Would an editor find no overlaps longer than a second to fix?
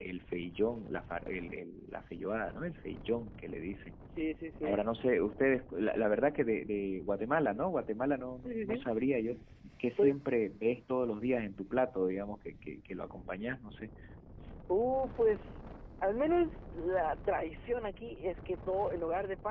Yes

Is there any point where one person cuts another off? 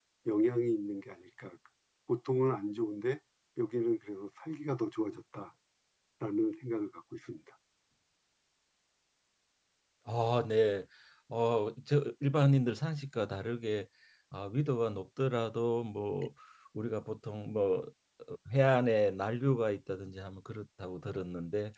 No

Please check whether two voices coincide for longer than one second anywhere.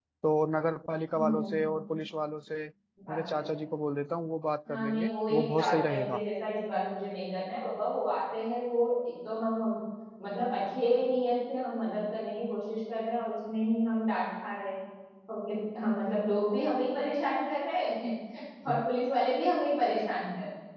Yes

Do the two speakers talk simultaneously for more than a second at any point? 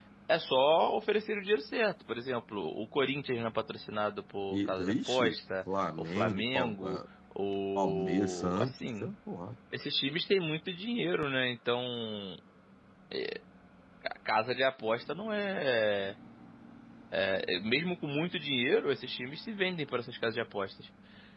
Yes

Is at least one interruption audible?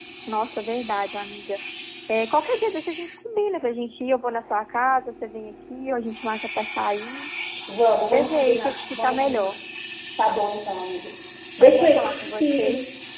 Yes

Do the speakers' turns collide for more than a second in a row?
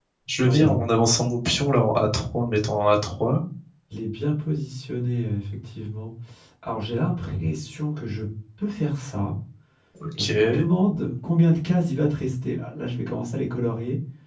No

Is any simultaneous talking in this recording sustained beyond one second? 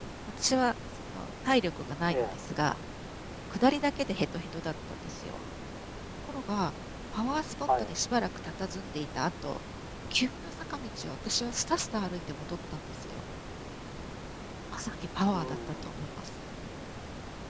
No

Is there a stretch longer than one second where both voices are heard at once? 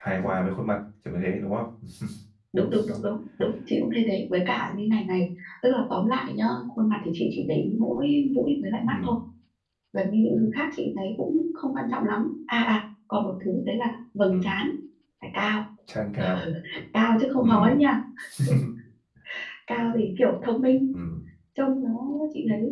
No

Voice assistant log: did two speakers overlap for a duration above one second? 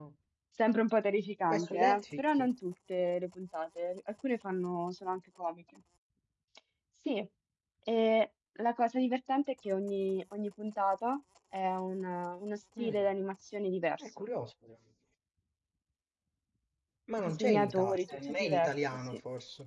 Yes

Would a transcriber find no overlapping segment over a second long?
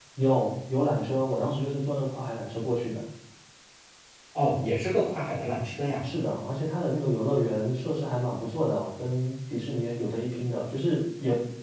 Yes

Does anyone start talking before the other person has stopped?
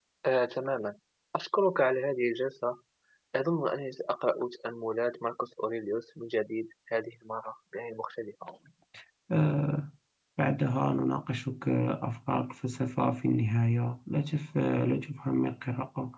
No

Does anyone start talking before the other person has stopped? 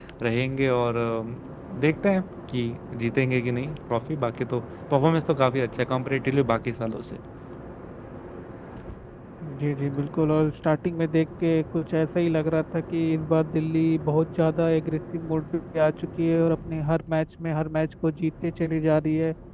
No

